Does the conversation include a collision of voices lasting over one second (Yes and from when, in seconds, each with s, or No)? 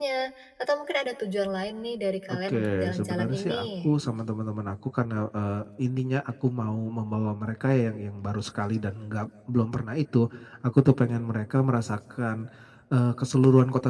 Yes, from 2.3 s